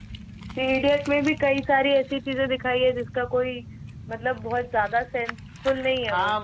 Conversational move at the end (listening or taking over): taking over